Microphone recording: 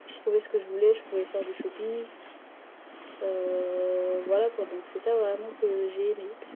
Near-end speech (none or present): none